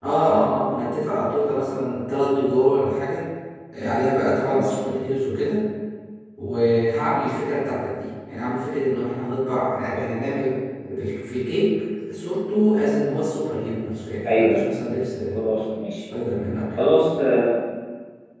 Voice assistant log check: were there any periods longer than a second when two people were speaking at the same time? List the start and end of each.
none

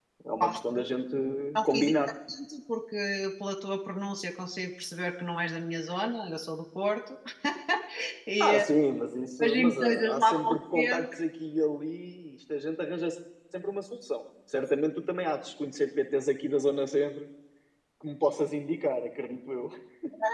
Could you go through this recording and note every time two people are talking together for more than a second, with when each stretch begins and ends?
9.4-11.2

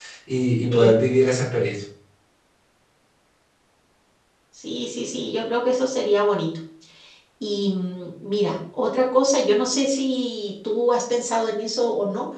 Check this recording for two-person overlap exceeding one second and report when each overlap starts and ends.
none

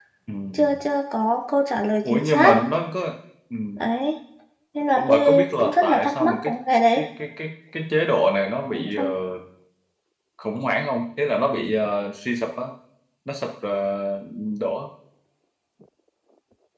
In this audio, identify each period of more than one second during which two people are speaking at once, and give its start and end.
5.0-6.5

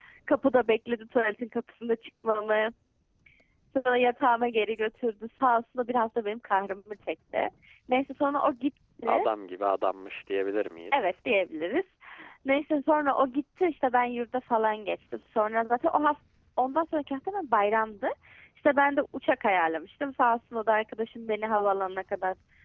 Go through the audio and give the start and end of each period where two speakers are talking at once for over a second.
none

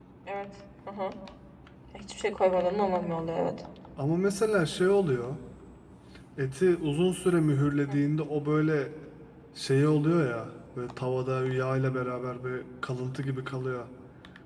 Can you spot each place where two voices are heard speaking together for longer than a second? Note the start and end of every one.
none

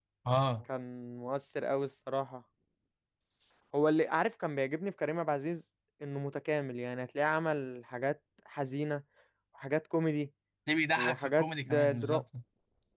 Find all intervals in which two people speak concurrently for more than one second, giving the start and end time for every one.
10.9-12.2

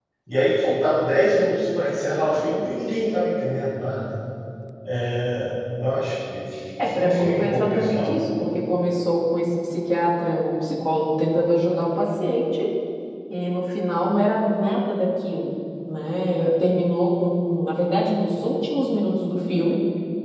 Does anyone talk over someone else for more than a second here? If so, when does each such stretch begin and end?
7.0-8.2

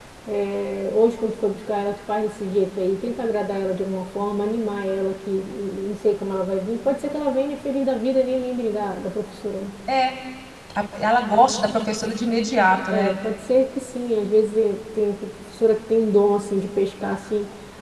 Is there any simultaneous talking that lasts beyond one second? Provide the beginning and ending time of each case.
none

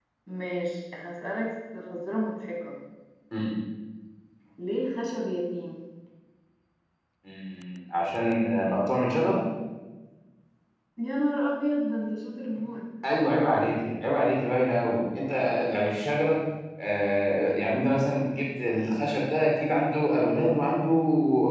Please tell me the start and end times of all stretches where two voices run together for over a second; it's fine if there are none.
none

